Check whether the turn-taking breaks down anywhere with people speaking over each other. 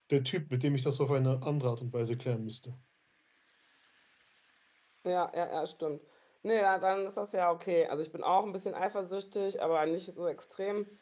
No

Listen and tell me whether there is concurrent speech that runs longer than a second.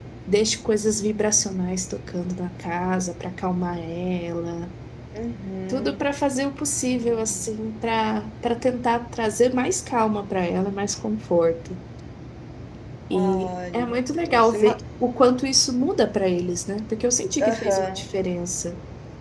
Yes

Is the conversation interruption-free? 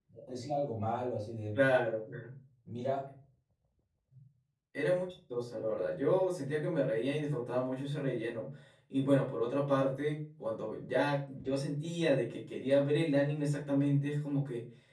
Yes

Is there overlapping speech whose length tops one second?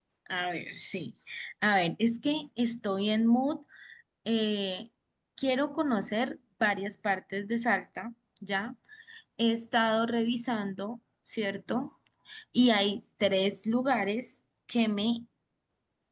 No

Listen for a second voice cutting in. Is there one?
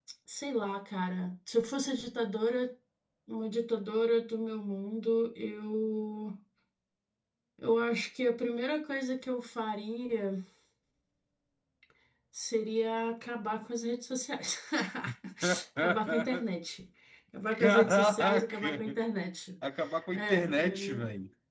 Yes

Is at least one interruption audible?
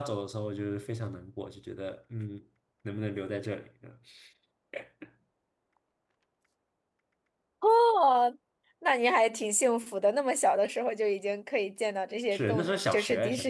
Yes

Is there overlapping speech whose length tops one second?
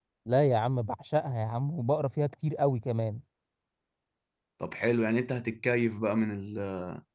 No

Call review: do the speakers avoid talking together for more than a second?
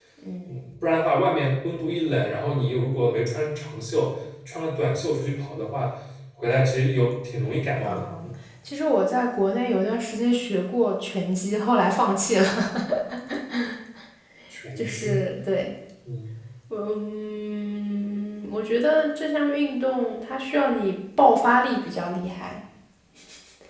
Yes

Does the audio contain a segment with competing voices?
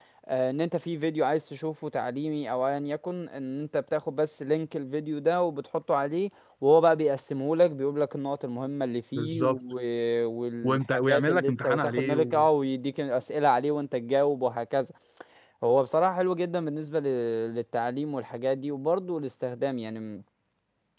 Yes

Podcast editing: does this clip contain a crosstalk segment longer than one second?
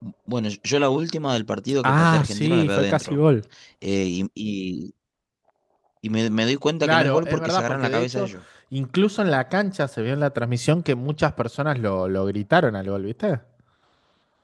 Yes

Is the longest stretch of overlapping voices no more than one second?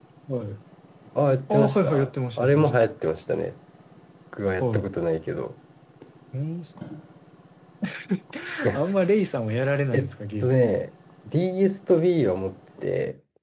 No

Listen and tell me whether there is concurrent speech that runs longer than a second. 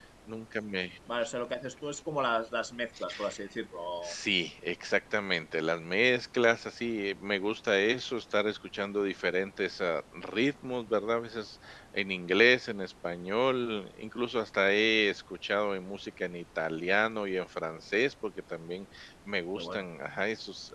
No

